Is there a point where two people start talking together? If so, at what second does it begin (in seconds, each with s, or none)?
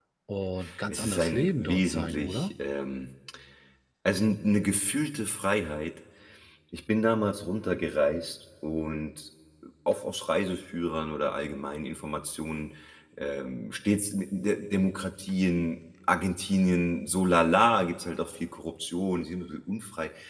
0.9 s